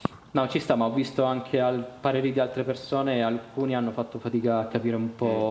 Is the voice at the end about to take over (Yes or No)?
No